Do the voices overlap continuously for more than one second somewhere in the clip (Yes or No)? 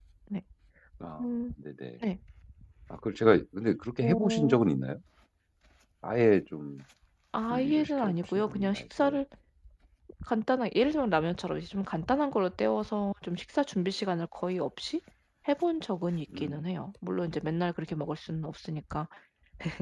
Yes